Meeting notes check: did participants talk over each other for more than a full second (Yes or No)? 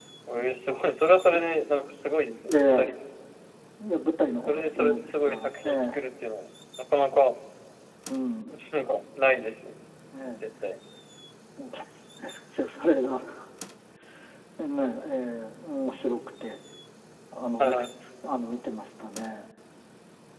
Yes